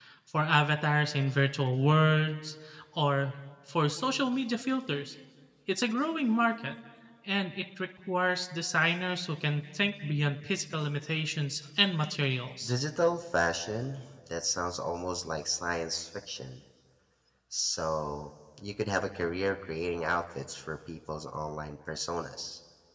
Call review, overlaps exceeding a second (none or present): none